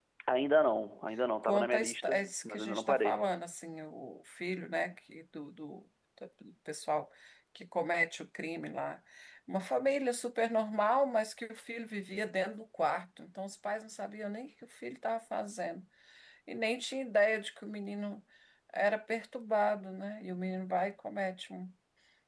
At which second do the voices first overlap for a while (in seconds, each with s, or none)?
1.4 s